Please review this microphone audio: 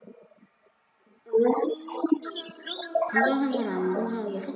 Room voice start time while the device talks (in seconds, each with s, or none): 3.0 s